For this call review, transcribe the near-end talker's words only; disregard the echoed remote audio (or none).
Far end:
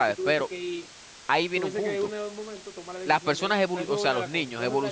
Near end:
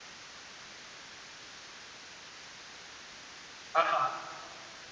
Ajá.